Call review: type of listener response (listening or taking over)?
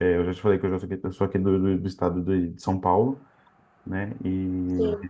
listening